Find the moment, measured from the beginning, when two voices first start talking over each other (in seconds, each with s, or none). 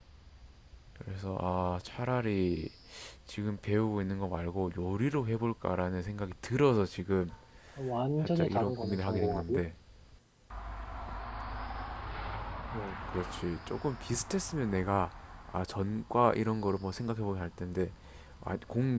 8.2 s